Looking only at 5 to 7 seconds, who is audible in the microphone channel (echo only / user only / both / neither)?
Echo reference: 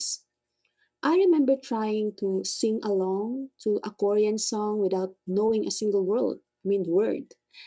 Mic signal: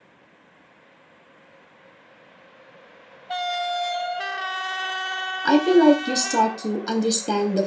user only